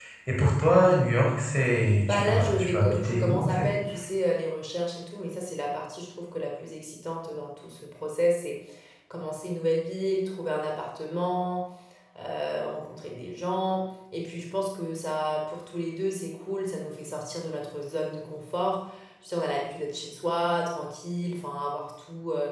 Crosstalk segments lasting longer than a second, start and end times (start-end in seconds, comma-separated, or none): 2.1-3.8